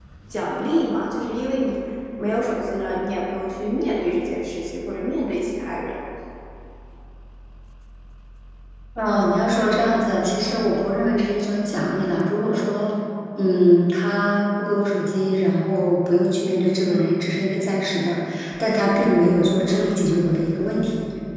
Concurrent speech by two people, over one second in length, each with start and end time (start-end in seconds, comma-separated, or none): none